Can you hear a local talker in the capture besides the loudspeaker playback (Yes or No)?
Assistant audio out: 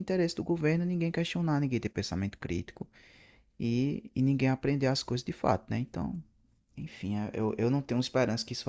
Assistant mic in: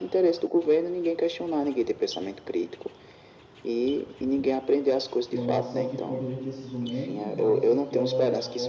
Yes